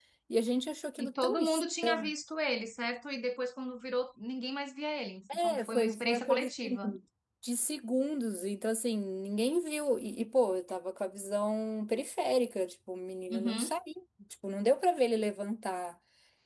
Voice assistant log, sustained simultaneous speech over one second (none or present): present